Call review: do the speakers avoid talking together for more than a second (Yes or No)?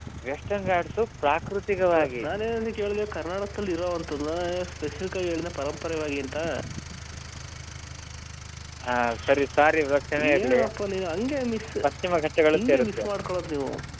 Yes